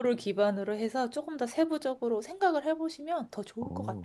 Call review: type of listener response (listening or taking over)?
taking over